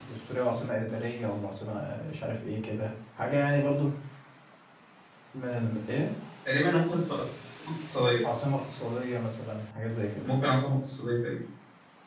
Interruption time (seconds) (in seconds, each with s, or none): none